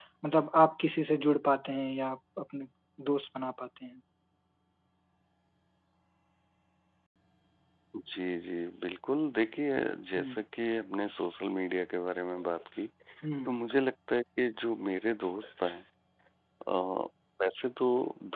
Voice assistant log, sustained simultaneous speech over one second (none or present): none